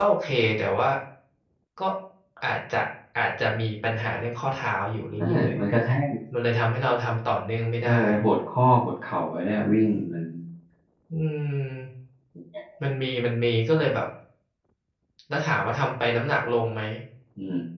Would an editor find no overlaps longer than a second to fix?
Yes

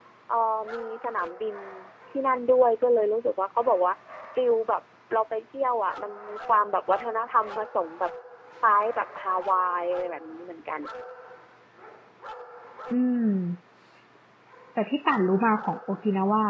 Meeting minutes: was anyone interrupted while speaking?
No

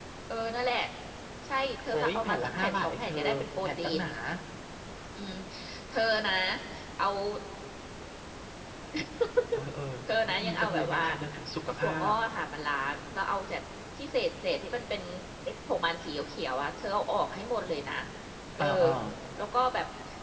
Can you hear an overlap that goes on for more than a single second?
Yes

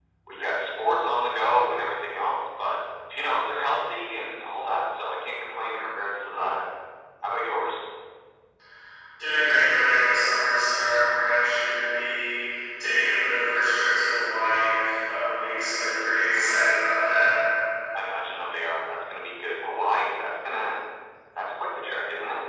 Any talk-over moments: No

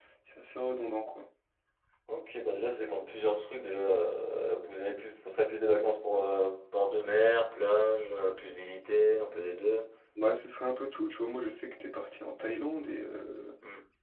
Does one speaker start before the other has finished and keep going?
No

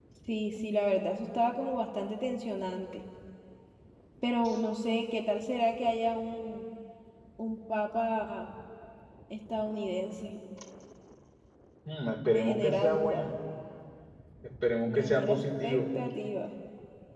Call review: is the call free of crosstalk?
No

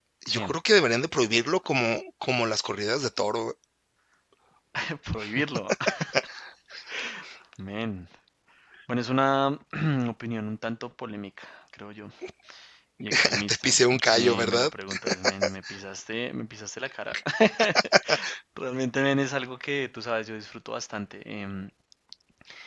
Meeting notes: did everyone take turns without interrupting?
No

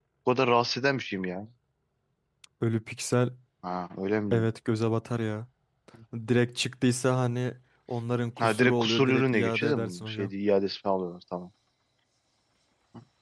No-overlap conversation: No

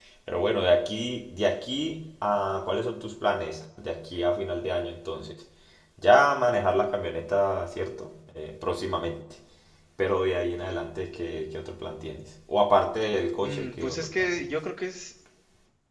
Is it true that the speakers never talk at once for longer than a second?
No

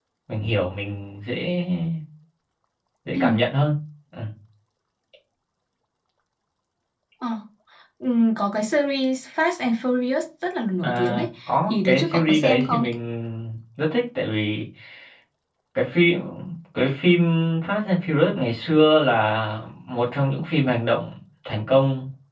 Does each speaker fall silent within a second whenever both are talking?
No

